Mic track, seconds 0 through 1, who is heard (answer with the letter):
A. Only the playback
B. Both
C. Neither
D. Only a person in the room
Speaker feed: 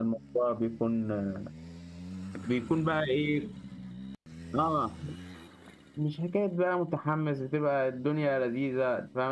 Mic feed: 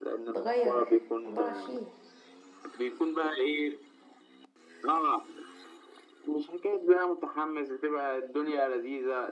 B